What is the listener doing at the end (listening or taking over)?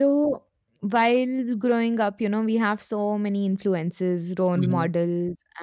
listening